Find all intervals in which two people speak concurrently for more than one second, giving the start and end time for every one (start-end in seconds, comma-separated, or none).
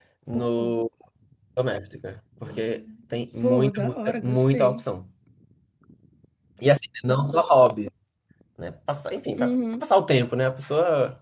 3.4-4.8